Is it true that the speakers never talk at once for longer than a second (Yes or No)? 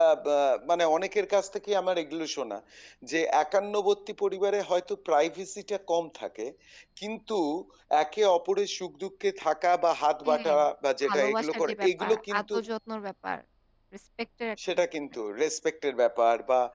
No